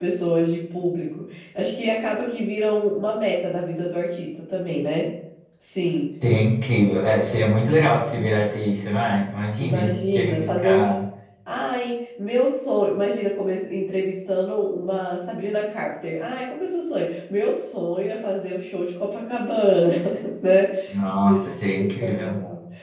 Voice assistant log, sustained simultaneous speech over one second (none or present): present